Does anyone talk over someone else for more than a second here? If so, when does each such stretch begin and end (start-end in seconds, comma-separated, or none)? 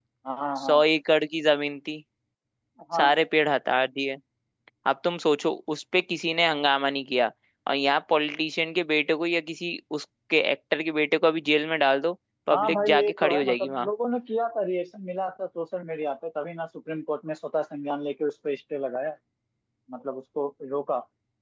12.5-13.9